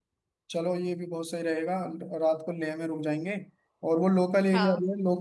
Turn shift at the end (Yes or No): No